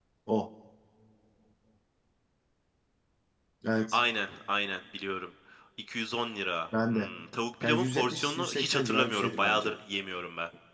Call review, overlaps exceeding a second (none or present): present